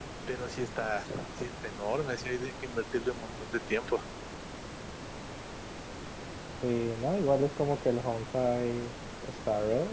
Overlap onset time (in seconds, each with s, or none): none